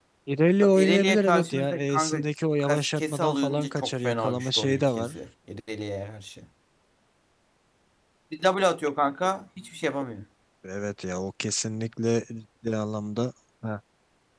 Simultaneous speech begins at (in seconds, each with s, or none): 0.8 s